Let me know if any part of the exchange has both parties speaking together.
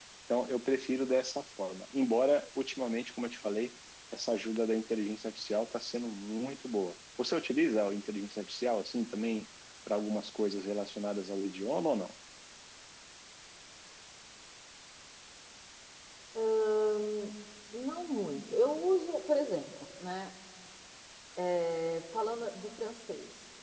No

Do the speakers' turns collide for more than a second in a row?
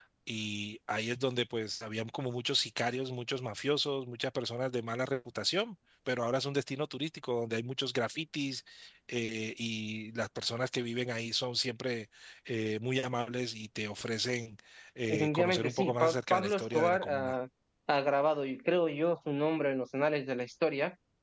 Yes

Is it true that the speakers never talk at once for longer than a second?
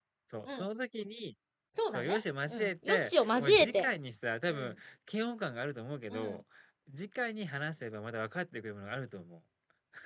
No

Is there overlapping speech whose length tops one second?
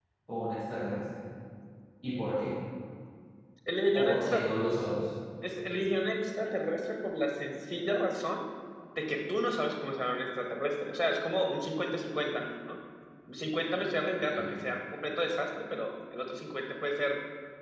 No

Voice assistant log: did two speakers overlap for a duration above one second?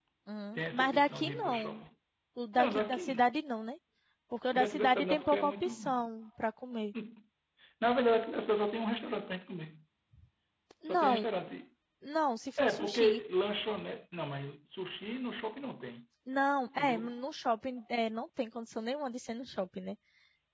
Yes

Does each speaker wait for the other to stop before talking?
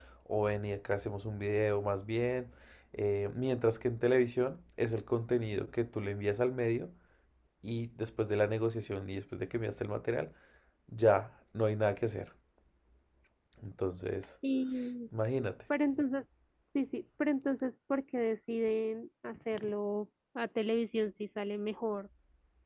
Yes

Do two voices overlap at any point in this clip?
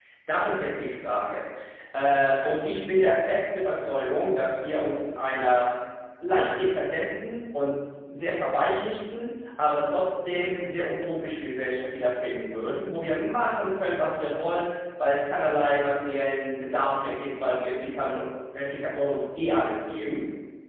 No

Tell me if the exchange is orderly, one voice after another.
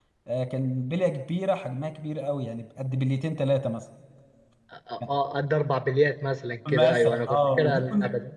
No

